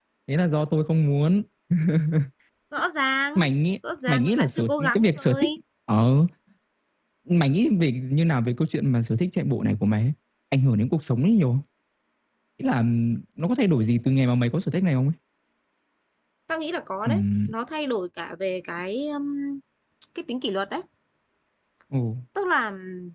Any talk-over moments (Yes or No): Yes